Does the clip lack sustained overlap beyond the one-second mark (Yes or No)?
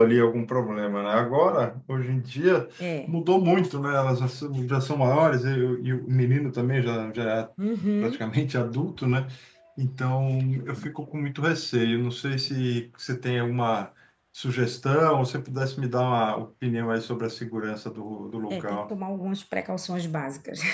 Yes